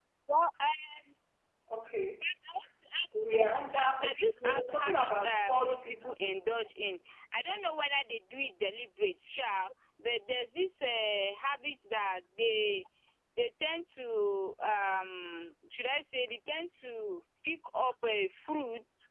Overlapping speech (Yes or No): Yes